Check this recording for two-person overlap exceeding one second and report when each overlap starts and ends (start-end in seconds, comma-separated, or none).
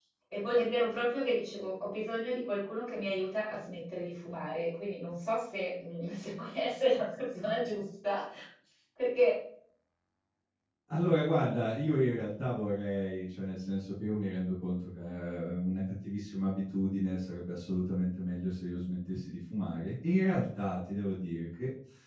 none